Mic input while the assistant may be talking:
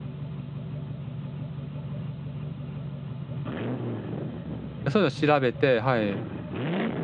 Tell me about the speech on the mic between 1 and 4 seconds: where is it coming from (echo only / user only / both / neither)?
neither